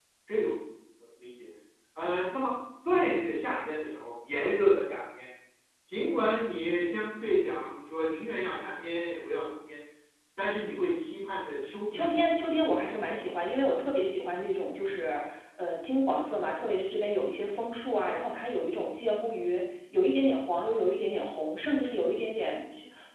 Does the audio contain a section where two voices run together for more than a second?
No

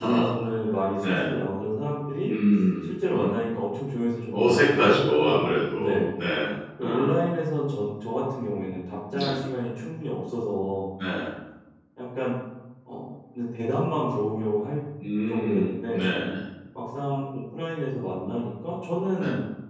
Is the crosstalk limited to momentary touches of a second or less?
No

